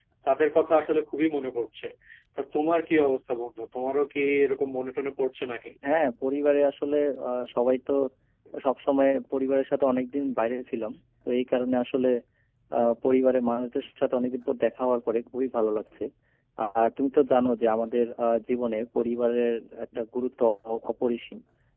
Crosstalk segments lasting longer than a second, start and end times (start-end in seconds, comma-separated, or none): none